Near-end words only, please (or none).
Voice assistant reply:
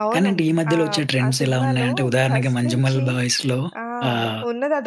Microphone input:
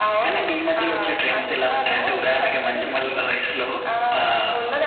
none